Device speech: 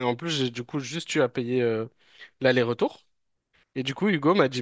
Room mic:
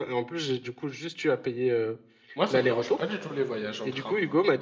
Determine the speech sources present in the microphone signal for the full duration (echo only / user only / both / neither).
both